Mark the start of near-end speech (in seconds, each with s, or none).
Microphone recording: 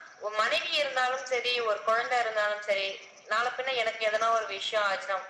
none